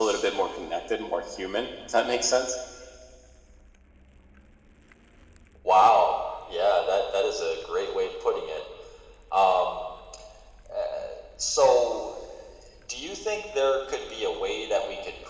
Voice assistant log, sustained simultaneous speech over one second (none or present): none